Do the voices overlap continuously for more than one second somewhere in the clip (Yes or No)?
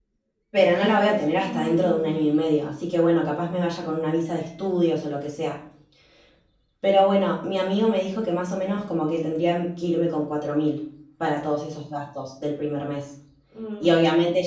Yes